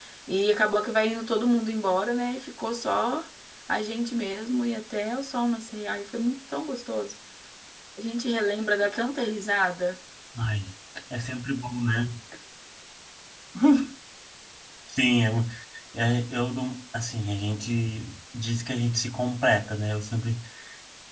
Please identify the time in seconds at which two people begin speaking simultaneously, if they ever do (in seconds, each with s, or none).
none